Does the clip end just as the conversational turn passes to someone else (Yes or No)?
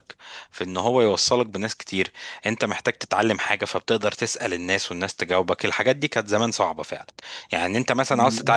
No